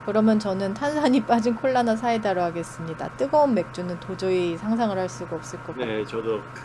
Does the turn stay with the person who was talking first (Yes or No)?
No